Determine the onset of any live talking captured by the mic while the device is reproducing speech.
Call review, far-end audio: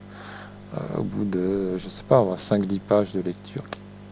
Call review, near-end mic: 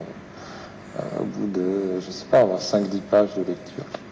none

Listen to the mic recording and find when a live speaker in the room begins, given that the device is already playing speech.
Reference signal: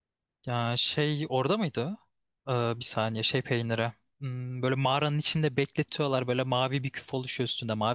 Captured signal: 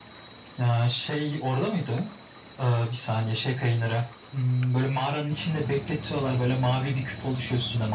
none

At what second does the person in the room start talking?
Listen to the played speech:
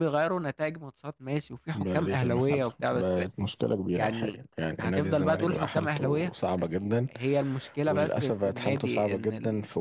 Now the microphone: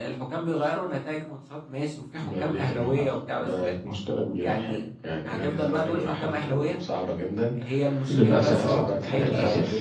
8.1 s

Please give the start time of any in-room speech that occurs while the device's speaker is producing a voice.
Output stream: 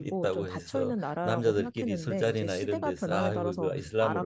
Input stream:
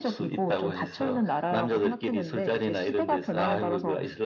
none

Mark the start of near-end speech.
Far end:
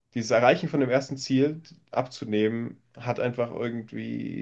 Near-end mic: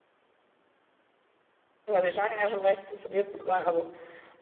1.9 s

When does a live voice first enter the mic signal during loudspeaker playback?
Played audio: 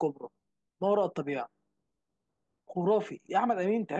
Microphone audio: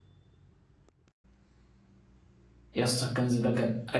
2.7 s

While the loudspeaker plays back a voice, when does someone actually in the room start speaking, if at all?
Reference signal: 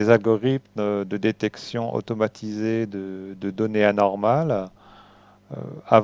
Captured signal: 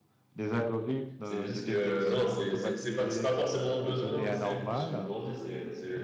1.2 s

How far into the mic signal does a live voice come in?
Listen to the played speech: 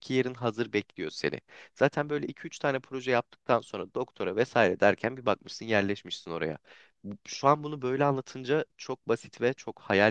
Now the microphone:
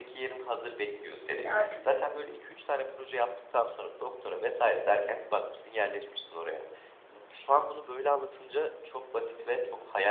1.4 s

